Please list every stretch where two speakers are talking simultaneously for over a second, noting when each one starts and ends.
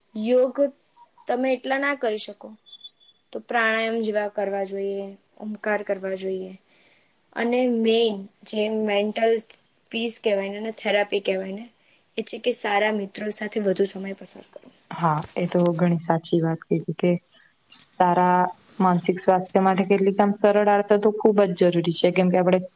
none

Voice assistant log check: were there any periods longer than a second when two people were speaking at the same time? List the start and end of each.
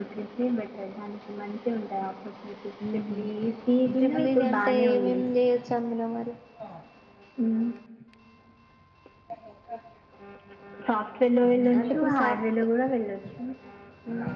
4.0-5.2, 11.4-12.6

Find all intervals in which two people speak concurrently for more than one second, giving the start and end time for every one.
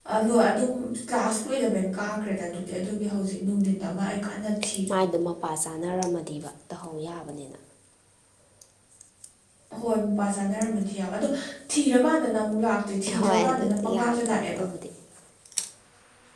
13.2-14.6

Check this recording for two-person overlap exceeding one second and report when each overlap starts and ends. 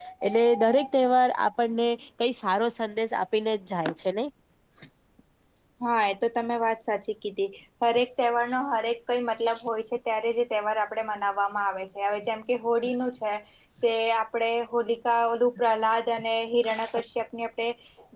none

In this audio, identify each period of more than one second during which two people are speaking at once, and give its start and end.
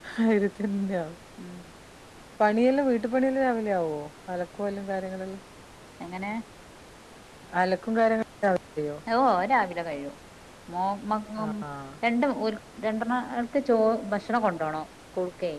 none

